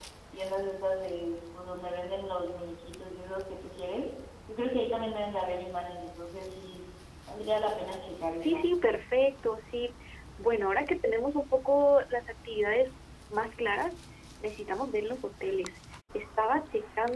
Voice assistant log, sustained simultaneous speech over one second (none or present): none